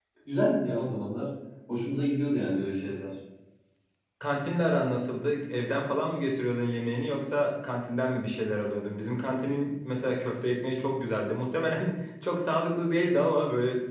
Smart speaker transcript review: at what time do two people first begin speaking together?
none

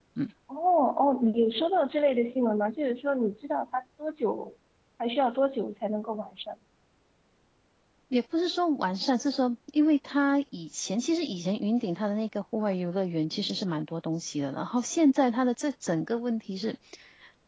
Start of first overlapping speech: none

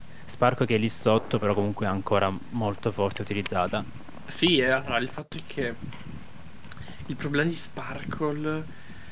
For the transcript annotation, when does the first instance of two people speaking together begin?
none

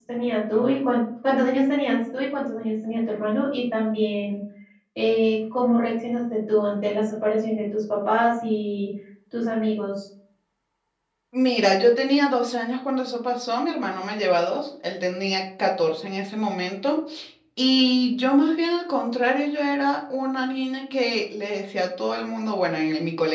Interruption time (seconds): none

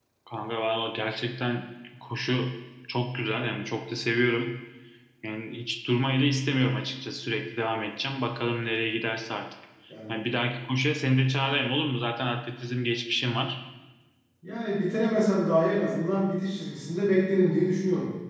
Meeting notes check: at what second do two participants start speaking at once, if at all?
none

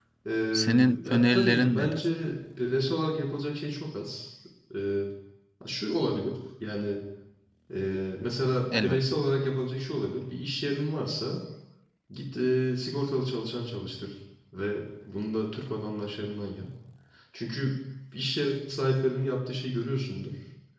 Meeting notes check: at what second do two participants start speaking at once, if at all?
0.5 s

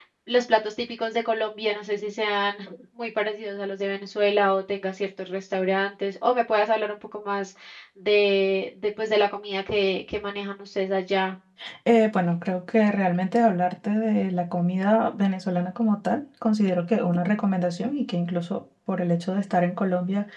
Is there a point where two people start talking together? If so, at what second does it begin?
none

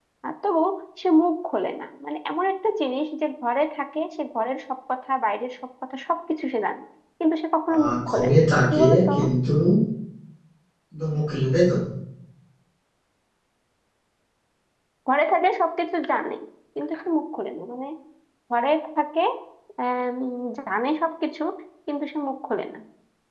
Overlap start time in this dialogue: 7.8 s

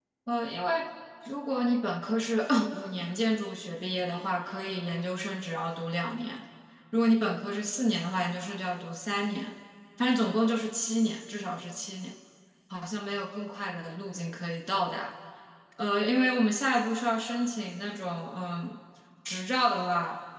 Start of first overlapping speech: none

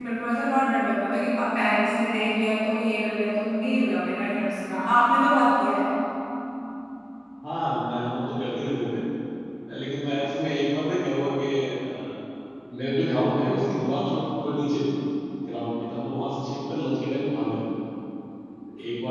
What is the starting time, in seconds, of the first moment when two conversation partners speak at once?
none

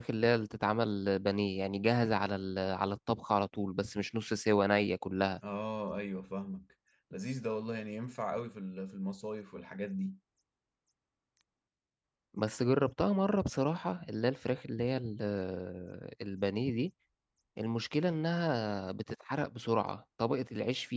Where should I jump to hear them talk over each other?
none

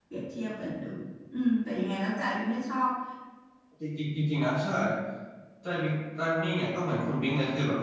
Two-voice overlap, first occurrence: none

